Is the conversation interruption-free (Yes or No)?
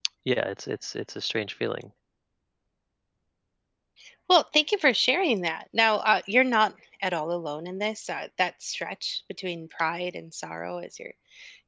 Yes